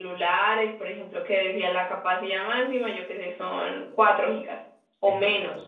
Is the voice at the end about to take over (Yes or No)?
Yes